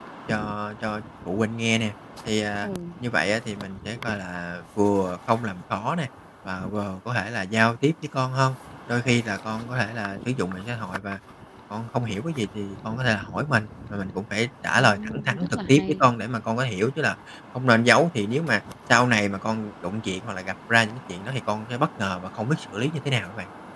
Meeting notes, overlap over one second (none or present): present